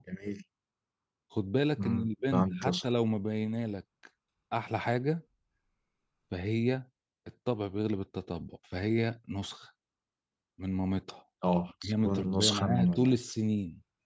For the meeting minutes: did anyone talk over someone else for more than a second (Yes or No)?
Yes